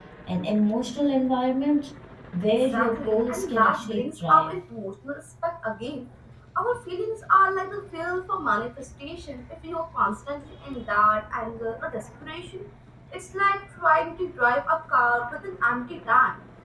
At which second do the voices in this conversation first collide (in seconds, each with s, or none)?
2.6 s